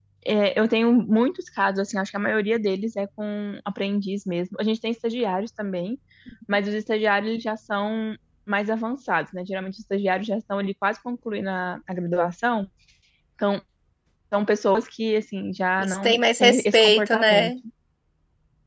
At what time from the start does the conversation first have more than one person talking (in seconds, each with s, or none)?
15.8 s